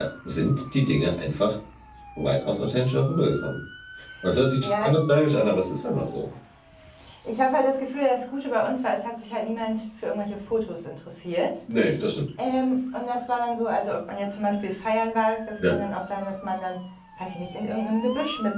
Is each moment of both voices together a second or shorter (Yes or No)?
Yes